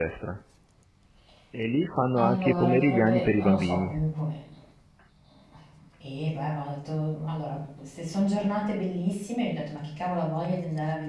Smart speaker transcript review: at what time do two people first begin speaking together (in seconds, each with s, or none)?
2.1 s